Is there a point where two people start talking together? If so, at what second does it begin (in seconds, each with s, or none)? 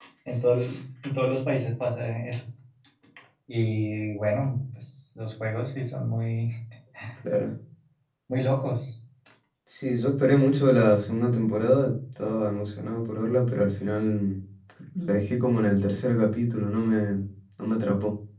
none